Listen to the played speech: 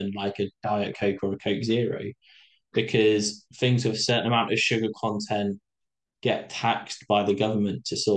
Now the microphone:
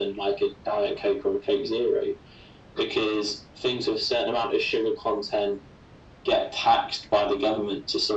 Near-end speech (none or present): none